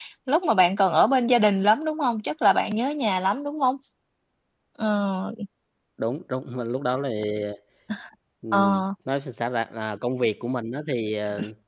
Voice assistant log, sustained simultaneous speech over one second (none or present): none